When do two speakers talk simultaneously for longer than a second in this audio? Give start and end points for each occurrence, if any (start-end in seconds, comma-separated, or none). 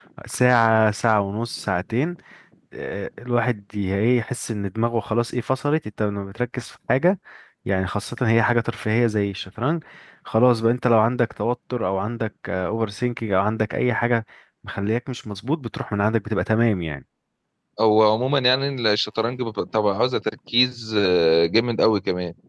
none